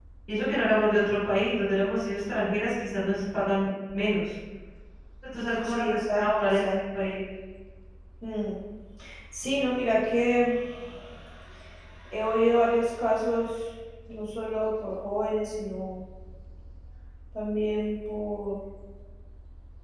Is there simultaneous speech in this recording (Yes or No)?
Yes